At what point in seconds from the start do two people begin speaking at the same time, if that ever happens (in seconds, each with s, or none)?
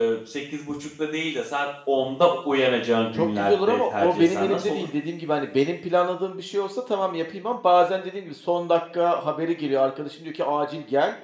3.1 s